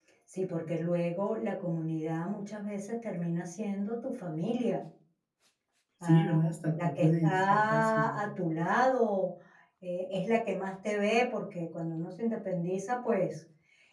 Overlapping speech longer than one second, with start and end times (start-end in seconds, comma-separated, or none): 6.8-8.2